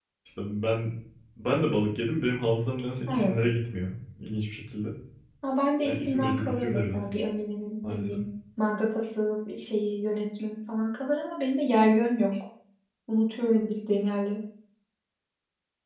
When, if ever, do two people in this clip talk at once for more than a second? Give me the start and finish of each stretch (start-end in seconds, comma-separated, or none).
5.8-7.1